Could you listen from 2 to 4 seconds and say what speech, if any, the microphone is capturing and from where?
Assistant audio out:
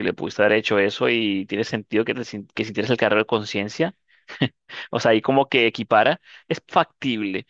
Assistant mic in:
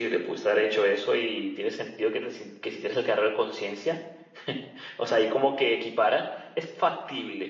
echo only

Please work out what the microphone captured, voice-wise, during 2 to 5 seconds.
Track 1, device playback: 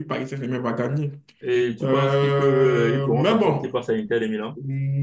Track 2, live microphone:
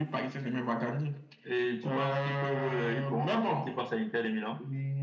echo only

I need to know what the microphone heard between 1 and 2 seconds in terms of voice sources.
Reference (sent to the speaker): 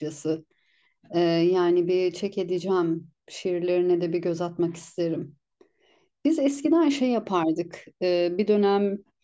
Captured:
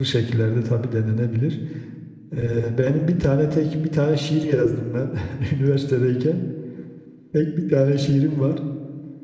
user only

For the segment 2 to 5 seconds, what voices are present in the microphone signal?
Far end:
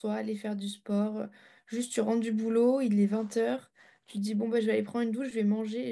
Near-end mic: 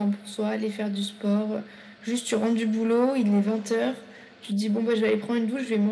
echo only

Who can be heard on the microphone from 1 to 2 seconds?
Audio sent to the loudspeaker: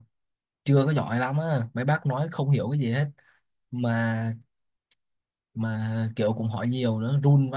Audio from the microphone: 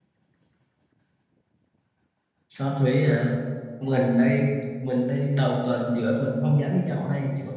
neither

